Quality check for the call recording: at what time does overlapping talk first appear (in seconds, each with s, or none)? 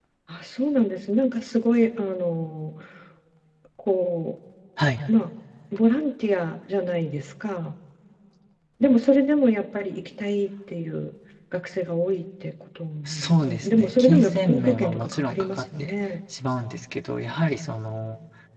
13.1 s